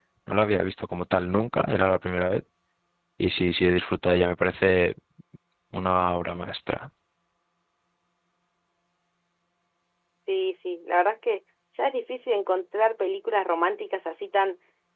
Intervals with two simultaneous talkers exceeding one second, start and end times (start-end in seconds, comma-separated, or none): none